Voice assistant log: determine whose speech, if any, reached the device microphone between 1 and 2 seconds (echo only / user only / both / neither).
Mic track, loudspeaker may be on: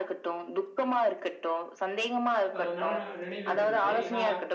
echo only